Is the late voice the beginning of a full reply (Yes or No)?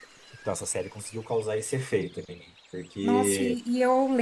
Yes